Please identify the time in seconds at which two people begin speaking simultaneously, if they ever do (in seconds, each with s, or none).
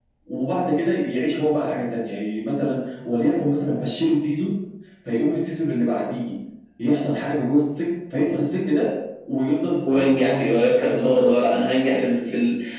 9.8 s